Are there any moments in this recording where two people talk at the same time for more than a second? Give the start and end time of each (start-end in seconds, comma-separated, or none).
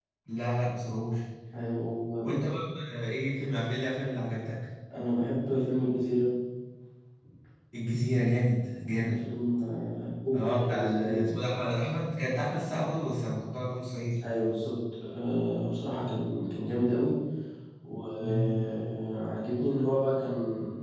10.3-11.6